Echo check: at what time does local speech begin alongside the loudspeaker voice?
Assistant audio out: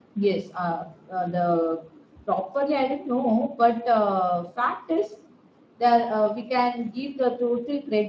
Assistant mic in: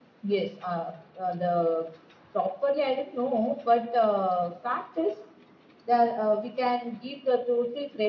none

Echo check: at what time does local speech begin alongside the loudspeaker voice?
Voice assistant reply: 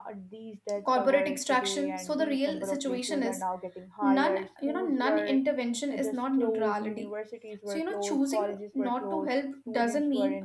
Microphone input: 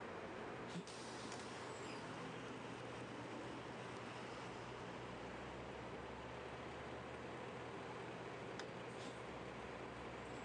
none

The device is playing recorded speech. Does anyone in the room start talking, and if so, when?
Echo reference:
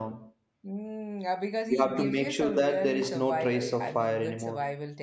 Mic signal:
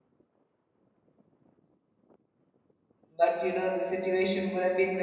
3 s

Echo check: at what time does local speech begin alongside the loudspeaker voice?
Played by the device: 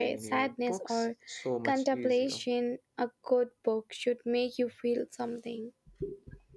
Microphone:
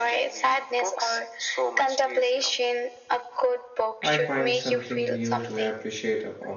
4 s

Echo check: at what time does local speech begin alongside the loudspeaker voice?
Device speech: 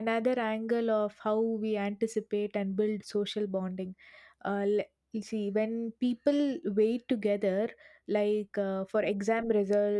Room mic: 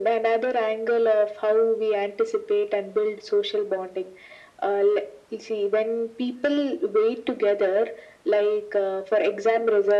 none

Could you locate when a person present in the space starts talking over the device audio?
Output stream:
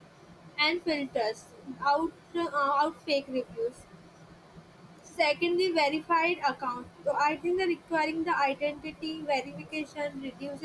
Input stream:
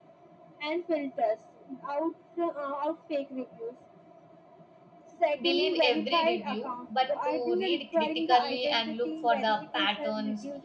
5 s

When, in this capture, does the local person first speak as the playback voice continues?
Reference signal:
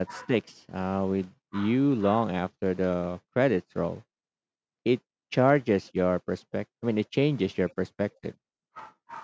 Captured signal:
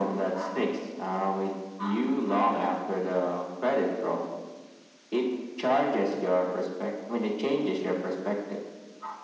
none

